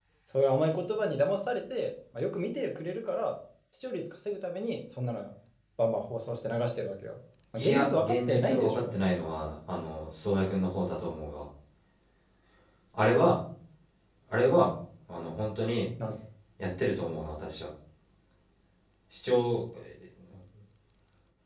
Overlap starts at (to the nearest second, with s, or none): 8 s